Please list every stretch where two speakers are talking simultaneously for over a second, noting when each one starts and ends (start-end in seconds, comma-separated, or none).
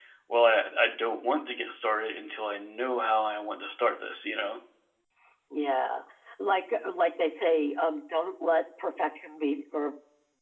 none